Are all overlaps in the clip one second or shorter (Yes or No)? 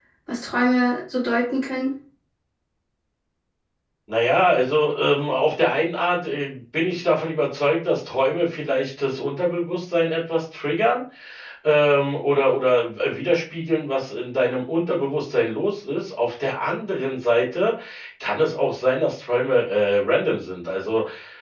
Yes